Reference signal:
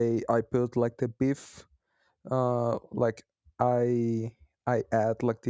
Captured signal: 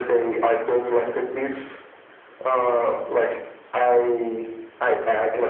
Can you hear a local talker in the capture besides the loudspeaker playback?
No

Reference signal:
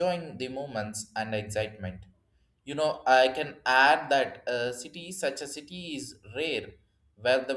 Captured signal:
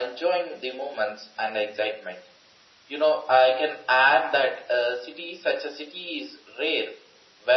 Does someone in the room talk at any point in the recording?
No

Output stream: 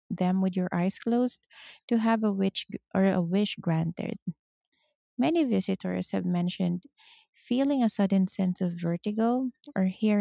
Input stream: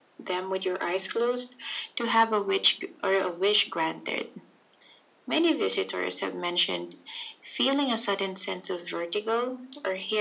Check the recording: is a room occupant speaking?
No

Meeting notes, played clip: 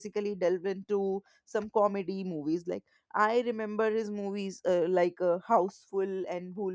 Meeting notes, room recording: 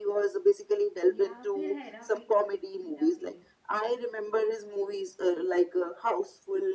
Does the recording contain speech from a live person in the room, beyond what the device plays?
Yes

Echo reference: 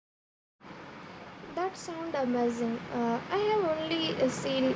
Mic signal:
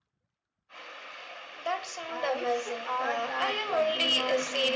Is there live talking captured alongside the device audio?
Yes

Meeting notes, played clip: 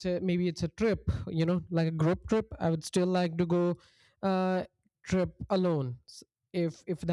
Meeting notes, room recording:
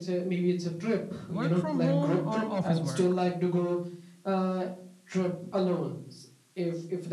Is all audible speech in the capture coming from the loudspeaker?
No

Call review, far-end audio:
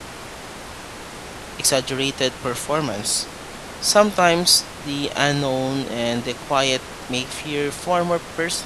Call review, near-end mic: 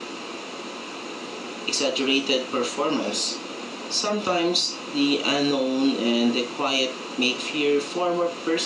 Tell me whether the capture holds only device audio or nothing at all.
Yes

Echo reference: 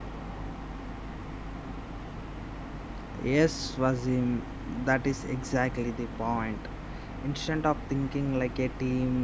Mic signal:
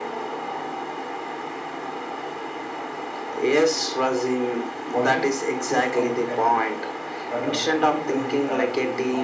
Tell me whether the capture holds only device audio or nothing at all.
No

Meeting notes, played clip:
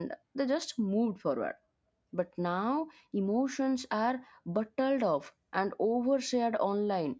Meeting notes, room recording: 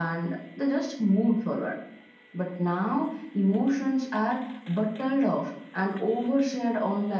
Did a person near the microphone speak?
No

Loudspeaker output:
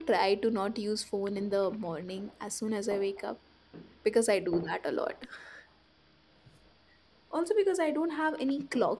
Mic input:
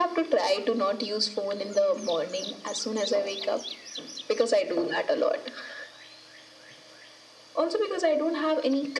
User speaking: No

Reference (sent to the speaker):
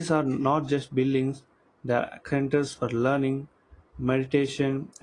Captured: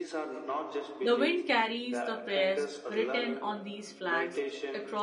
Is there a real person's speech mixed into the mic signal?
Yes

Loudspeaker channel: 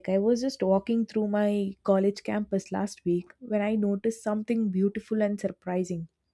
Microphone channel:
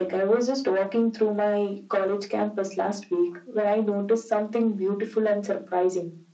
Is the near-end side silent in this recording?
Yes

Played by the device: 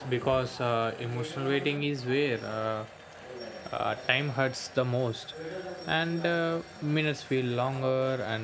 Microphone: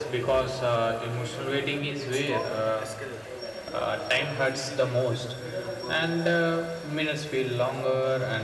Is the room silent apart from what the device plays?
No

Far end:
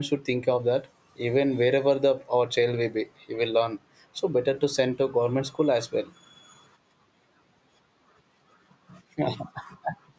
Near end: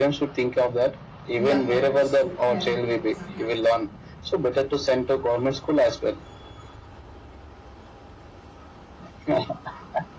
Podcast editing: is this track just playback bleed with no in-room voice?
No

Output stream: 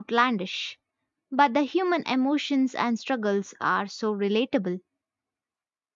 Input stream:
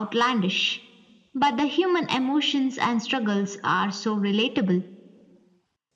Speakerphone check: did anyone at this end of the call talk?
No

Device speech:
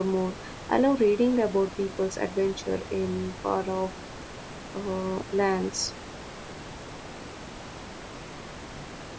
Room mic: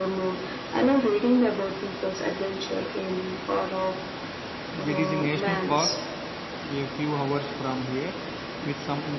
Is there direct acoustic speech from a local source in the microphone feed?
Yes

